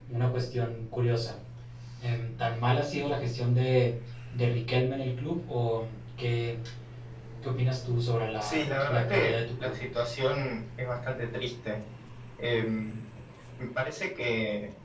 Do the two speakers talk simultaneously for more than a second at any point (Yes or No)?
Yes